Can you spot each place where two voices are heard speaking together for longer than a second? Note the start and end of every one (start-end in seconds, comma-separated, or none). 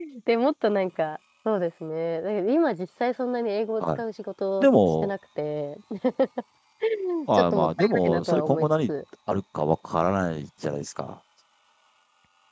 7.3-8.9